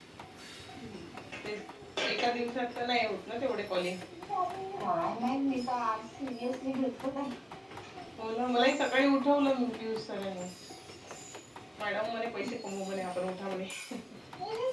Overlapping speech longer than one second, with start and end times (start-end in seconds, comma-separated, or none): none